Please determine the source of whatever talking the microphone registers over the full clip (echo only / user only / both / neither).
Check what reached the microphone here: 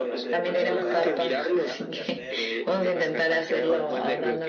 both